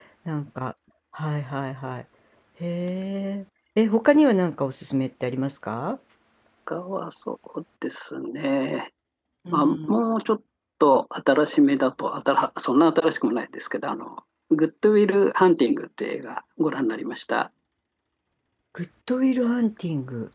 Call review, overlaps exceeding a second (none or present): none